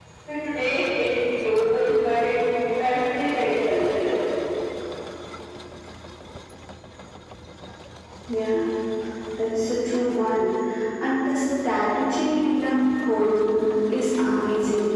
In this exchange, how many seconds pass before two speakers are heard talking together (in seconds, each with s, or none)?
none